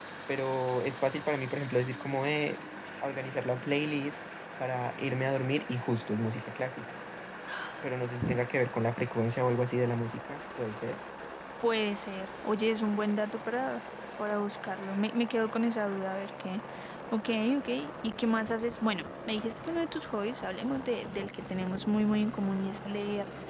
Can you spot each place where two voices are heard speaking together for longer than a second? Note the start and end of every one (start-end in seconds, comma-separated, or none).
none